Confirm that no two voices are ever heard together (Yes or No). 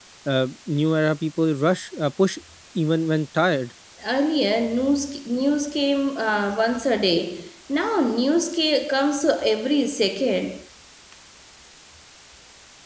Yes